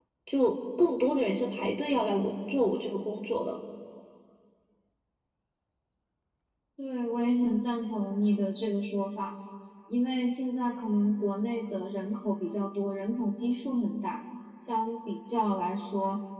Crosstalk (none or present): none